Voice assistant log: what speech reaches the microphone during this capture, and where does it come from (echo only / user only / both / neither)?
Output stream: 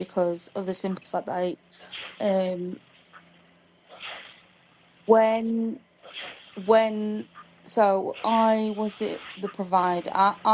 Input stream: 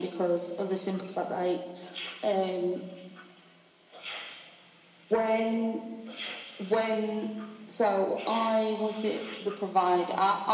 echo only